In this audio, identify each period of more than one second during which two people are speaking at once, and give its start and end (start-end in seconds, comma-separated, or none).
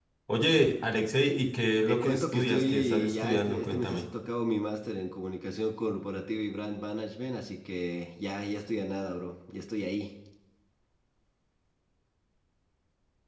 1.9-4.1